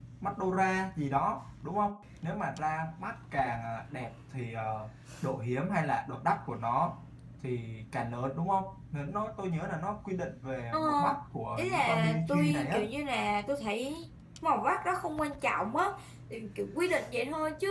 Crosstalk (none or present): present